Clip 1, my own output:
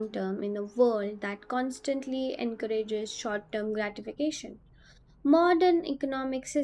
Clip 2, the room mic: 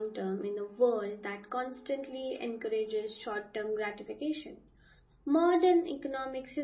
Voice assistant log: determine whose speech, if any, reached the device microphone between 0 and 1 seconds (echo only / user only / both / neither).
echo only